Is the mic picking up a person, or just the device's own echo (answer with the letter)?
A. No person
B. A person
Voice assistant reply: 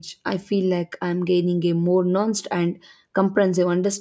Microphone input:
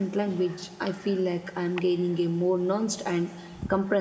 A